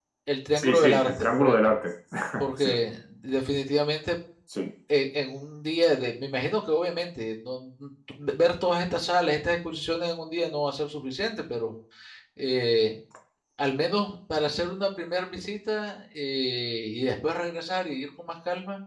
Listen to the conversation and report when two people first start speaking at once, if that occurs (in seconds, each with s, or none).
0.6 s